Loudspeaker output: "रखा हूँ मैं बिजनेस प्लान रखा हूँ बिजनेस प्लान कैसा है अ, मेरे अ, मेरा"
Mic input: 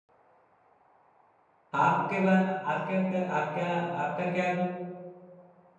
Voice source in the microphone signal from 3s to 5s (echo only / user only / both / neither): user only